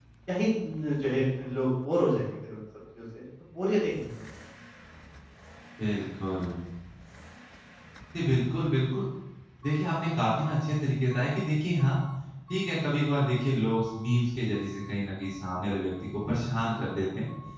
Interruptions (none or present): none